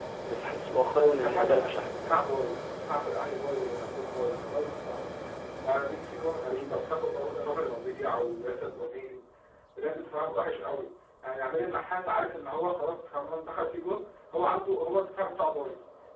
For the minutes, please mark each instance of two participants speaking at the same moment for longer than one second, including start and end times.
1.0-2.3

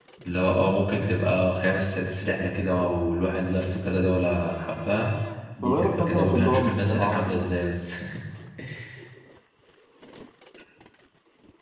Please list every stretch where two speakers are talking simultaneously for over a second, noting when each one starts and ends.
5.6-7.6

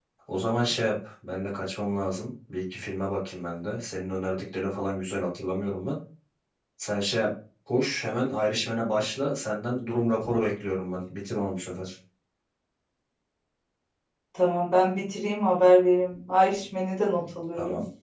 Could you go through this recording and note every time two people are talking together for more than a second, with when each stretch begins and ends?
none

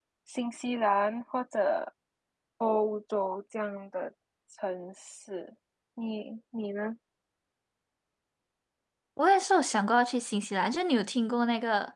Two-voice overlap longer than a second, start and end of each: none

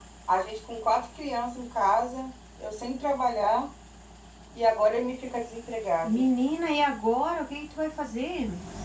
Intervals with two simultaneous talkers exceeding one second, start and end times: none

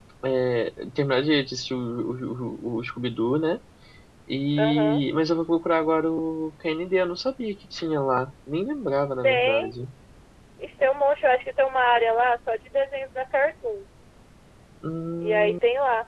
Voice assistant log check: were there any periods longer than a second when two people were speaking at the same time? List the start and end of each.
none

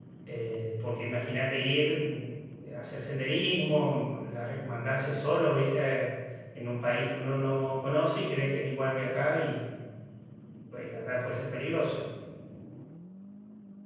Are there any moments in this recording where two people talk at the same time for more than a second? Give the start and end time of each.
none

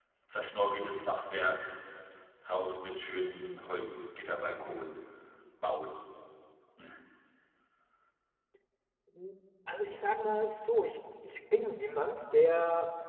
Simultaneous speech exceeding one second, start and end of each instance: none

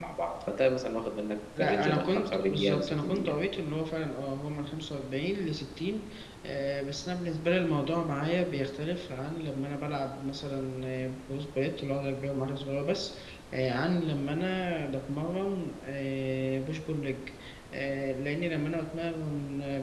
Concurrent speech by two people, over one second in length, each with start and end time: 1.6-3.3

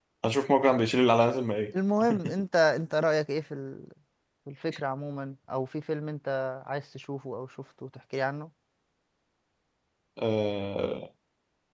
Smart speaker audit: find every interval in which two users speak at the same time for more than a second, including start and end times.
none

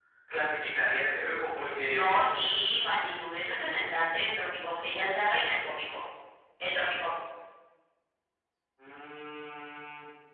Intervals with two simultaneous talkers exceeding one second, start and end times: none

